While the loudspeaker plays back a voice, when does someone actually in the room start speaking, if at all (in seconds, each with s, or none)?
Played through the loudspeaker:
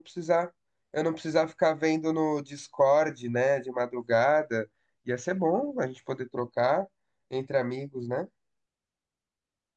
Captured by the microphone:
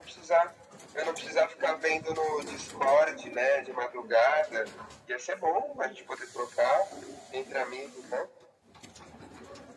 none